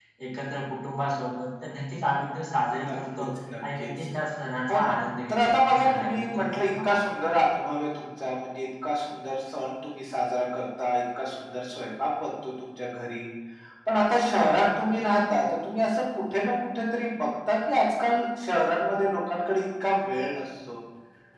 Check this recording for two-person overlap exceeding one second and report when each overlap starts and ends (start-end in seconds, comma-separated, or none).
5.3-7.1